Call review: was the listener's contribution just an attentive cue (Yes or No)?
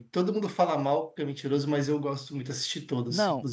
No